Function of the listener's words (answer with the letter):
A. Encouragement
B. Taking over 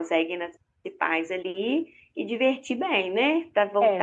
B